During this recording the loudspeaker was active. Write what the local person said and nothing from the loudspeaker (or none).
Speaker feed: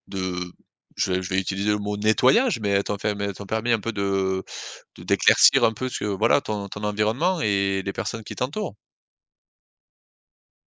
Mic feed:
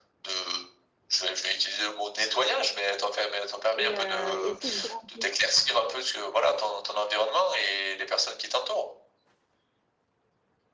et heu, et est-ce que je grandis?